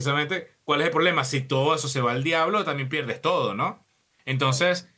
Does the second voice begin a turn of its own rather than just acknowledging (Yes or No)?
No